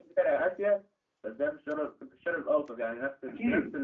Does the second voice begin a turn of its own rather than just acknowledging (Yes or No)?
No